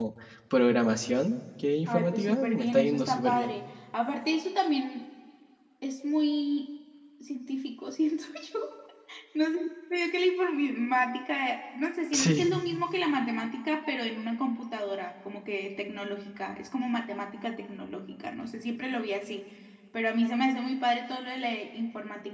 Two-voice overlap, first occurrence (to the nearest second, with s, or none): 2 s